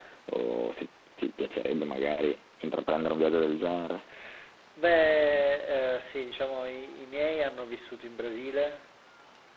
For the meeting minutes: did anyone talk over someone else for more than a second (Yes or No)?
No